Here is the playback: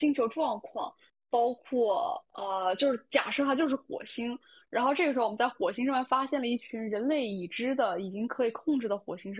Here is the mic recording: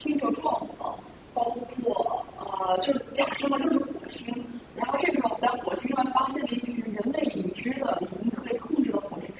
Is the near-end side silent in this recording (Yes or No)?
Yes